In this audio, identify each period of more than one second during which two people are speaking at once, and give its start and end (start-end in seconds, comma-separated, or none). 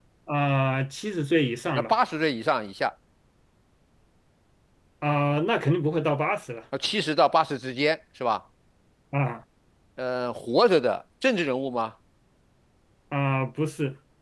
none